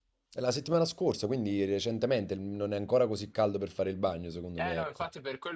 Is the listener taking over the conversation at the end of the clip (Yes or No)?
Yes